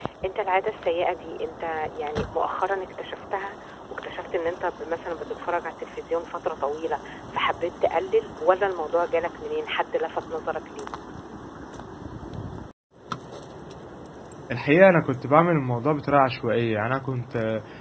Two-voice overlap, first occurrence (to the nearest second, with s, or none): none